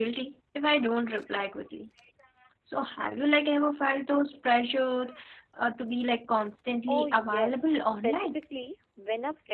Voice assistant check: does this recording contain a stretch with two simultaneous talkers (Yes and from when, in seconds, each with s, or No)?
Yes, from 6.9 s